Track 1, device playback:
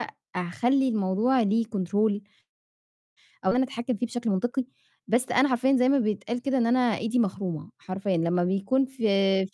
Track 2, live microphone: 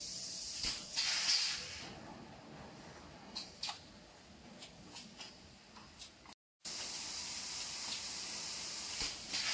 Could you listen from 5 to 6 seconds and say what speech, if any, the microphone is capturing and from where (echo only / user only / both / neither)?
neither